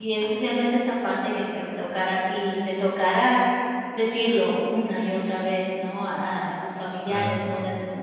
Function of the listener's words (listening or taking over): listening